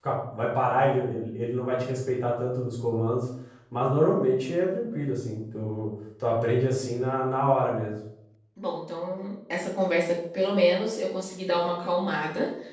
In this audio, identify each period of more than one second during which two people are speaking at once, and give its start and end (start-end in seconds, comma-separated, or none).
none